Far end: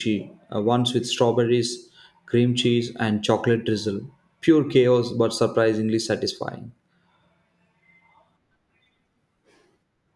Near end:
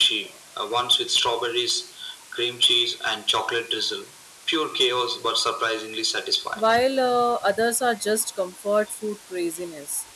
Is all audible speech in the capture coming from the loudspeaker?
No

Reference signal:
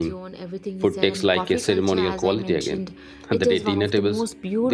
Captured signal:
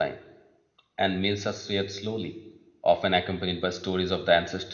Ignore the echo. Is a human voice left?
Yes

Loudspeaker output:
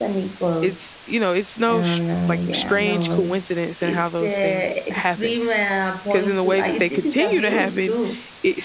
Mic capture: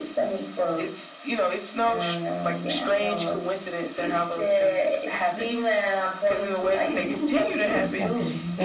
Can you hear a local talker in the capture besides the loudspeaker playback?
Yes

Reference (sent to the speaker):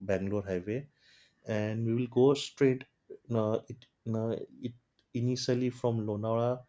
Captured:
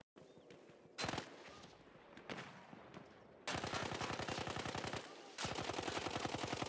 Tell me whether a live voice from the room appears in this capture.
No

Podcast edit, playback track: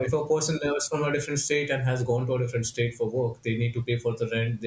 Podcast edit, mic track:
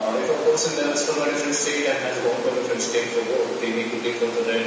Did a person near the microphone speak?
No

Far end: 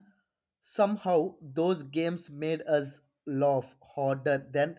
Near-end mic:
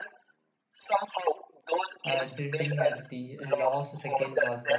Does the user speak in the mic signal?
Yes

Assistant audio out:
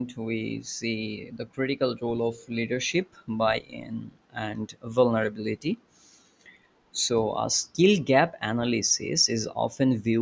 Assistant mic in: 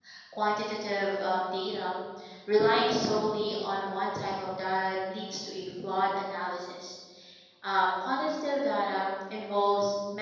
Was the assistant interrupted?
Yes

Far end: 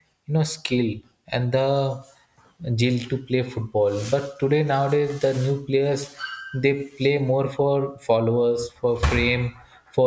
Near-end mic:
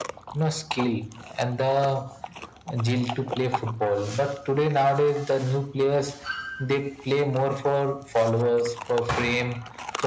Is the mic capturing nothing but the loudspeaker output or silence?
Yes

